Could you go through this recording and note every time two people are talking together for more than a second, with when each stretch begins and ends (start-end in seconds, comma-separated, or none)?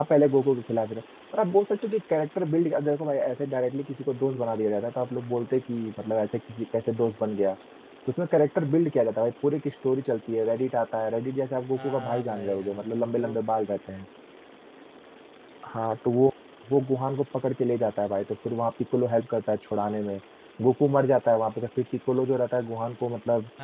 11.8-13.3